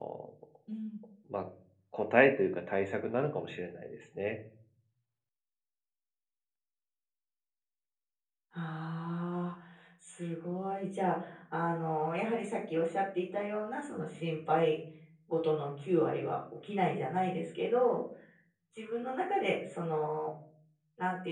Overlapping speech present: No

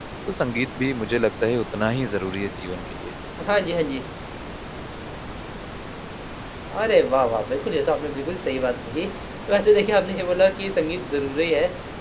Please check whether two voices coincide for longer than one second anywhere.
No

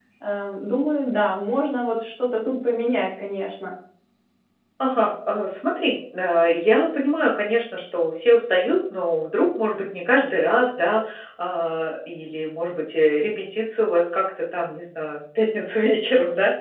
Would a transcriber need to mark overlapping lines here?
No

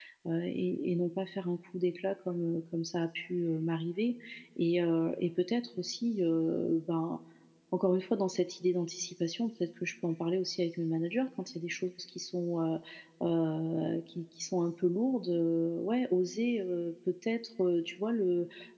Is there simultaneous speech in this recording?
No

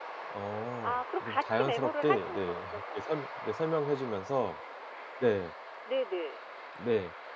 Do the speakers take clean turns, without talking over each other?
No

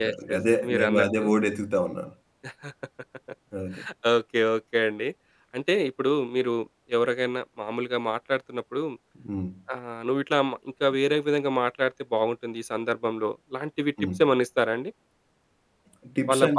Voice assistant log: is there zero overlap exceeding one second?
No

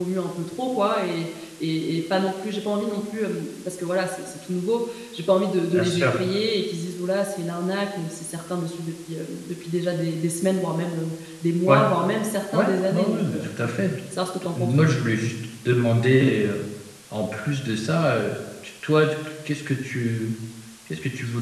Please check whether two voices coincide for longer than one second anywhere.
Yes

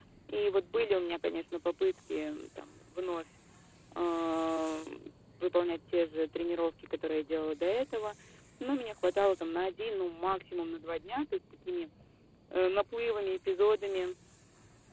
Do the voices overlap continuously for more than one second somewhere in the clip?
No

